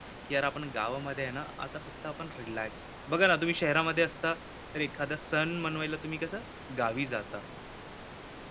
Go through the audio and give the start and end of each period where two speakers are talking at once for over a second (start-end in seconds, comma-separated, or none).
none